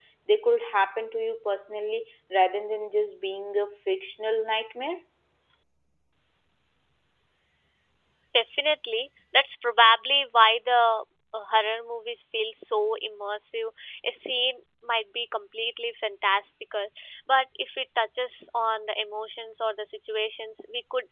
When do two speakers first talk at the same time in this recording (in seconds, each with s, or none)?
none